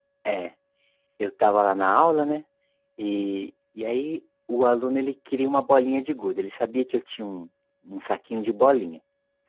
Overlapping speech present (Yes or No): No